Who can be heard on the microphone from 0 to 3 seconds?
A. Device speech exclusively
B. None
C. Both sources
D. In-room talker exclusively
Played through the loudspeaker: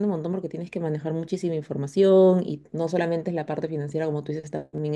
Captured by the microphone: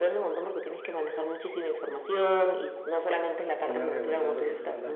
A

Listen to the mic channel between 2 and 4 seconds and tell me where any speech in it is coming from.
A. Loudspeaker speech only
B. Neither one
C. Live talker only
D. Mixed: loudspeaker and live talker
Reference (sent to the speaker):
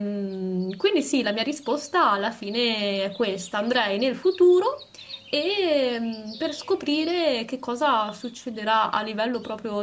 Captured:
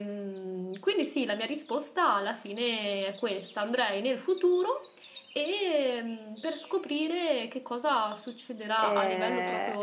A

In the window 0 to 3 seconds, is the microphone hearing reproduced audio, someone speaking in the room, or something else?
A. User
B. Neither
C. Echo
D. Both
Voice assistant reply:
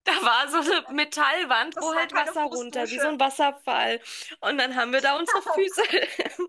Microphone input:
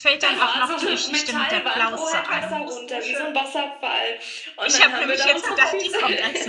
D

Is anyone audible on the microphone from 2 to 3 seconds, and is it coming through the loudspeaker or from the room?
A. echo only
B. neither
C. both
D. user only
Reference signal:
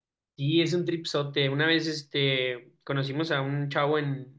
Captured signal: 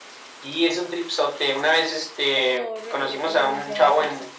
C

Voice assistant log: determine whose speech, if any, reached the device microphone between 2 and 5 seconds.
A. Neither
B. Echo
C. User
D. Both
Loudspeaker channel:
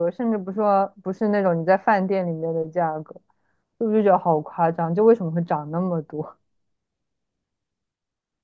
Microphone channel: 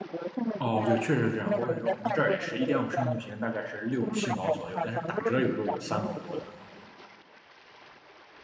D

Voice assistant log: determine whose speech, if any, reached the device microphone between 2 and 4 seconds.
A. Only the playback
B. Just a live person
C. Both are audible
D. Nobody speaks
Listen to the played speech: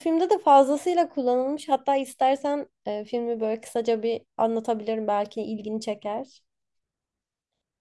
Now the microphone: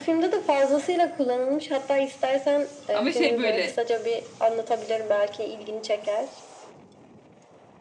C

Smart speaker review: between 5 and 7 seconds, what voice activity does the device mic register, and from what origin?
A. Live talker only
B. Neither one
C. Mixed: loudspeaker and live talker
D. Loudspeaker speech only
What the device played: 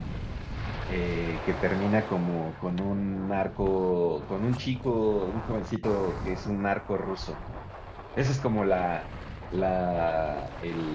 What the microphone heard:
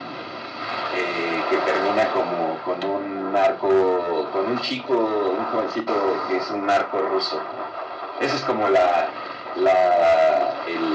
D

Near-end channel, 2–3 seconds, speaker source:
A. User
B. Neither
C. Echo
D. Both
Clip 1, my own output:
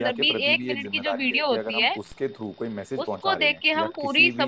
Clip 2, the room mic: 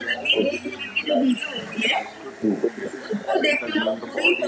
C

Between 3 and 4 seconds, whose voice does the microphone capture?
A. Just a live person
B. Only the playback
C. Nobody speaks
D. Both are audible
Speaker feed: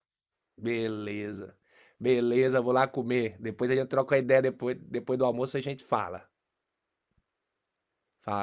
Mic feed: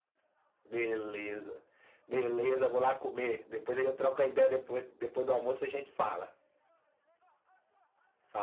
B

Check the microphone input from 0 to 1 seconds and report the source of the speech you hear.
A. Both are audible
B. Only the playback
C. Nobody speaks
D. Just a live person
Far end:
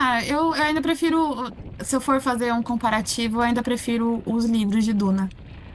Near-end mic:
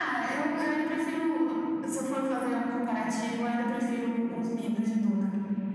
B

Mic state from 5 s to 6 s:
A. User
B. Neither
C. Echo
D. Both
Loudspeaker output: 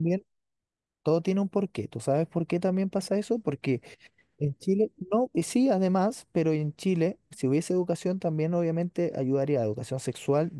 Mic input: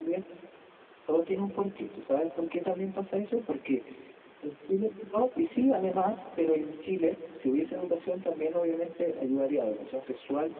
C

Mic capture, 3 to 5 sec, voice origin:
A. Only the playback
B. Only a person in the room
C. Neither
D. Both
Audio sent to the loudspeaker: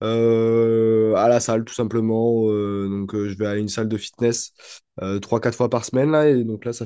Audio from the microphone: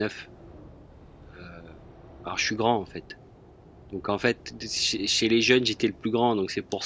B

